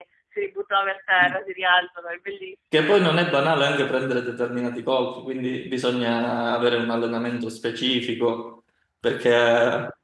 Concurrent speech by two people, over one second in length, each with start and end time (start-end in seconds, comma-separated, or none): none